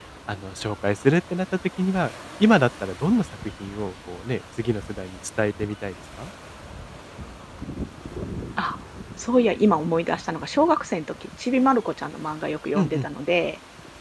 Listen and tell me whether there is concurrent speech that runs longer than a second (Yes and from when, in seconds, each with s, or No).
No